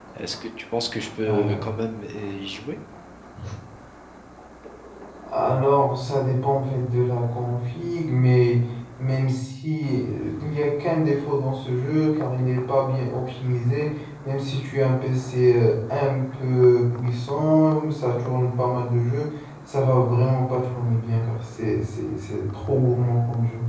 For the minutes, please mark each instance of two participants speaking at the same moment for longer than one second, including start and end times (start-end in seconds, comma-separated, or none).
none